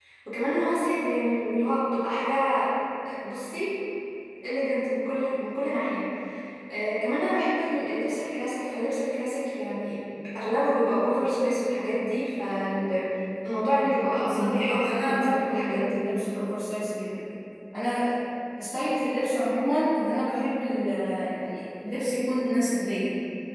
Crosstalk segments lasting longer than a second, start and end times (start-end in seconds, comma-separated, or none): 14.2-16.0